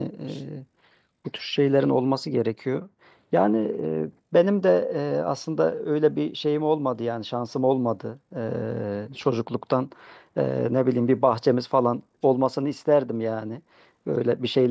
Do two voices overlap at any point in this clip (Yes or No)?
No